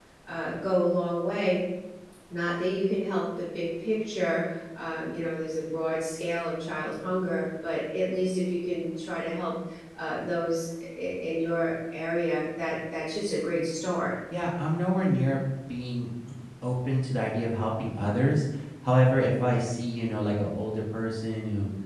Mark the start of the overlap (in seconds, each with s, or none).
none